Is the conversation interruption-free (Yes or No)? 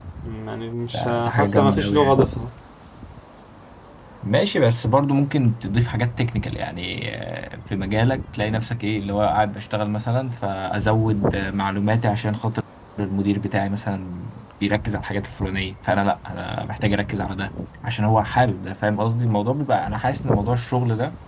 No